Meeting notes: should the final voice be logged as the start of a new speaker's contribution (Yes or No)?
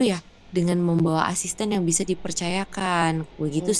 Yes